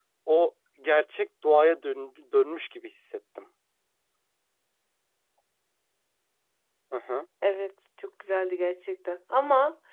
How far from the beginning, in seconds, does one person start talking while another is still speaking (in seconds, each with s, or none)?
none